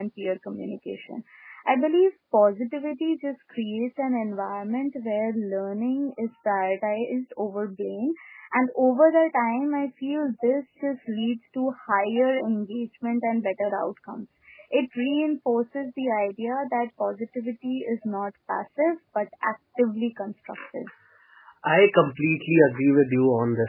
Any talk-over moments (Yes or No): No